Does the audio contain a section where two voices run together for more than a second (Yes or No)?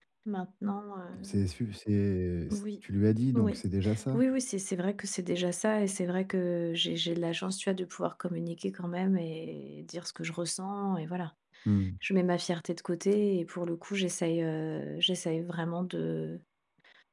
No